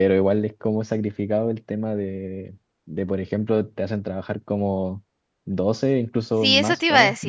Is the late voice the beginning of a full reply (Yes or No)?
Yes